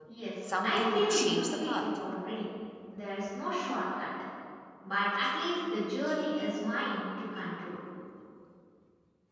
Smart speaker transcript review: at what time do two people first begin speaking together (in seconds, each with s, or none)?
0.6 s